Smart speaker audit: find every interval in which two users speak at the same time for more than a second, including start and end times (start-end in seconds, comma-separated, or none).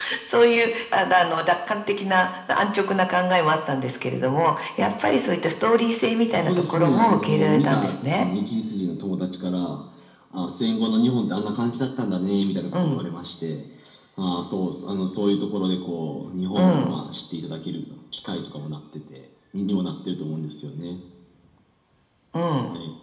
6.3-8.2